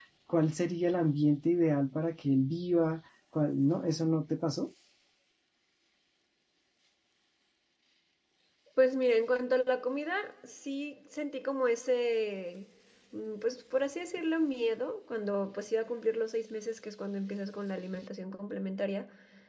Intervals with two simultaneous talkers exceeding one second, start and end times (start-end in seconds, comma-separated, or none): none